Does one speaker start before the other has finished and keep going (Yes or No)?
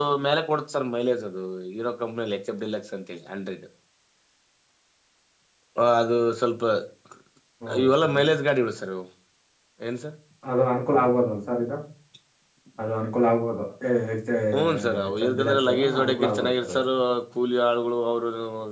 Yes